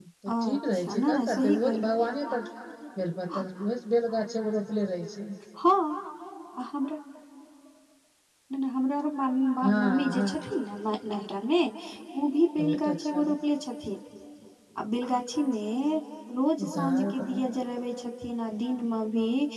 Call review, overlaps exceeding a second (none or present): present